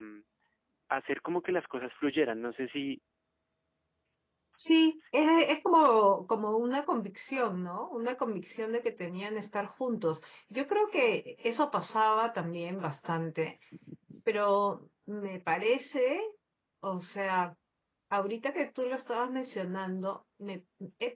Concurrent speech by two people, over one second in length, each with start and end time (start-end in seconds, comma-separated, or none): none